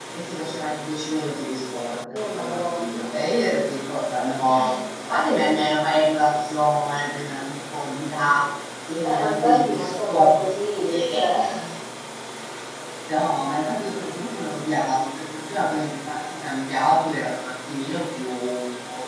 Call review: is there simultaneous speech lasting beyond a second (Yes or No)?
Yes